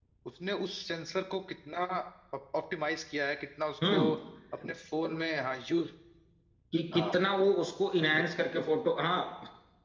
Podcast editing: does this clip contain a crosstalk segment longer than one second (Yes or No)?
No